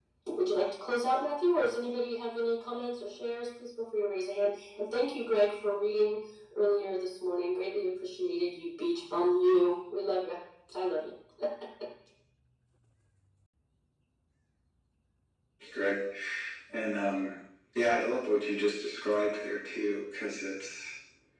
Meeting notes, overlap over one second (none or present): none